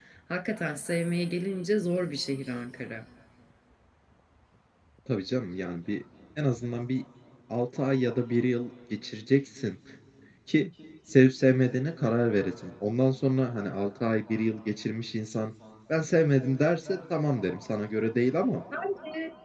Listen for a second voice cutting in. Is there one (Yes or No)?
No